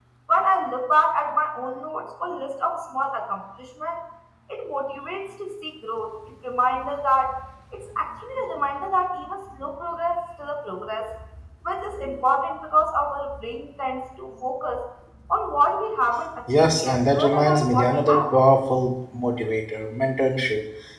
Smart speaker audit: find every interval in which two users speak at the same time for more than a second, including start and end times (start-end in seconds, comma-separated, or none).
16.6-18.2